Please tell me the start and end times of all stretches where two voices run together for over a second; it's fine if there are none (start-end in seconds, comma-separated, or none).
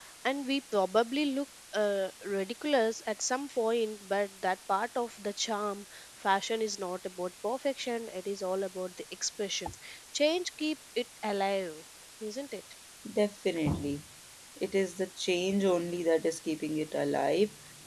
none